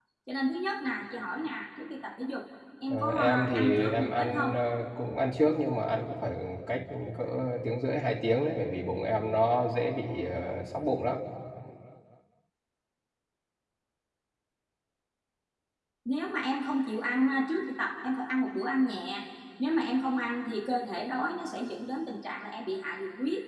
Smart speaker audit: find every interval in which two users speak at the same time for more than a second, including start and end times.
2.9-4.5

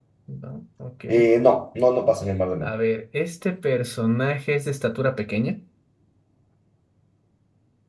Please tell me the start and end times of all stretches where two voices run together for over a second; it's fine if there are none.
none

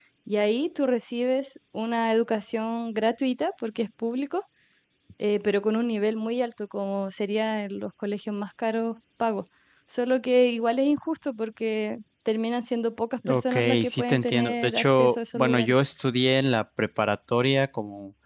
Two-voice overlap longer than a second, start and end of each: 13.3-15.7

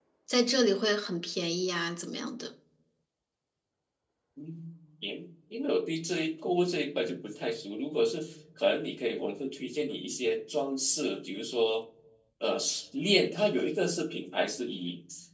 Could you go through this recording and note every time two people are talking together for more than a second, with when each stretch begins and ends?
none

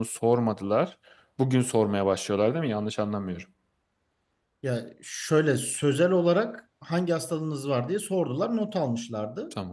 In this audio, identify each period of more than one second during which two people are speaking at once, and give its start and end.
none

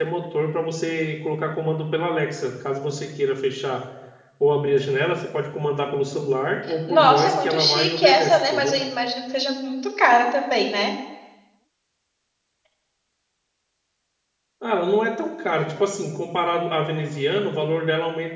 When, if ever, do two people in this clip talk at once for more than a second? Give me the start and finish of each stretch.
6.9-8.8

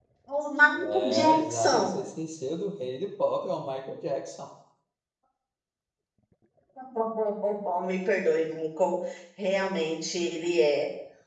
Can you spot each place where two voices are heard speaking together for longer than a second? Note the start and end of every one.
0.7-2.0

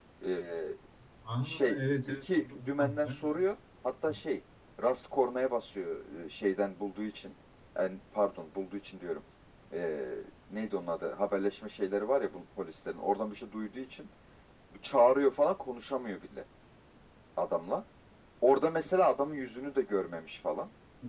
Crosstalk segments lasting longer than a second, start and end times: 1.4-3.4

